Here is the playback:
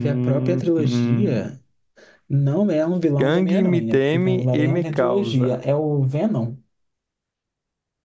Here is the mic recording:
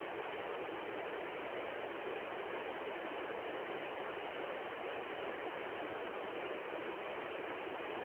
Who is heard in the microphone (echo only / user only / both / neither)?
neither